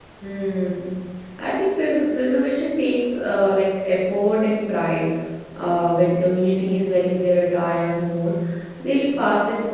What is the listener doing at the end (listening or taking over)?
listening